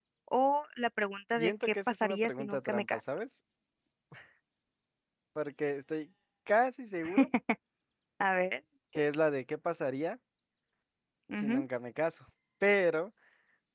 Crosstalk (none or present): present